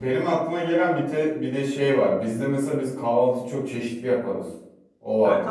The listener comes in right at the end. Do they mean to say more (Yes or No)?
Yes